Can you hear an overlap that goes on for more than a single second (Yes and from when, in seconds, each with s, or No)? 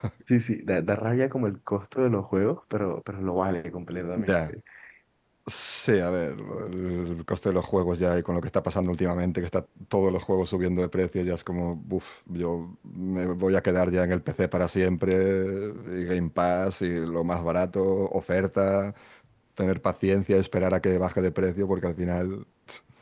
No